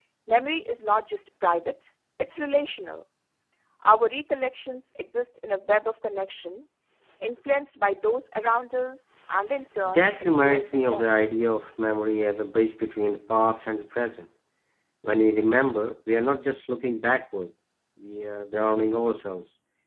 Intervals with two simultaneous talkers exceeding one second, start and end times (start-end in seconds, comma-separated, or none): 9.8-11.2